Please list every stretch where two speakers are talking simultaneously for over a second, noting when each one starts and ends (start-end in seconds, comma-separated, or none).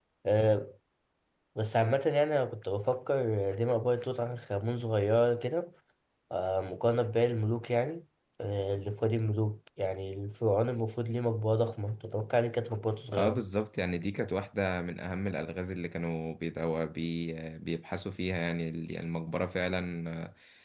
none